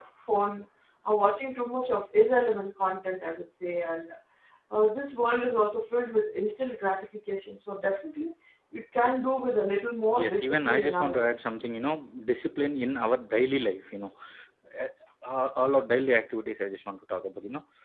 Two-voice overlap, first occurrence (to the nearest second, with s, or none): 10 s